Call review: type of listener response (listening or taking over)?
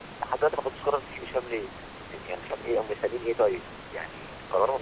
taking over